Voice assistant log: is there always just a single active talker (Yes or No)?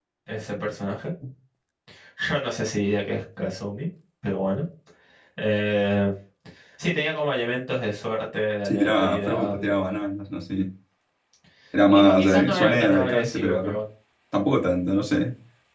No